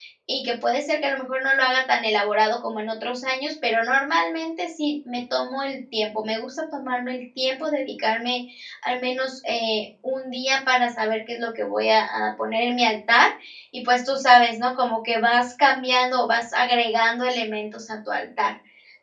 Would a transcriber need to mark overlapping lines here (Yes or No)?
No